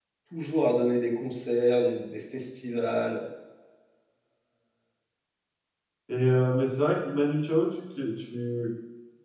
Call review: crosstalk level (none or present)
none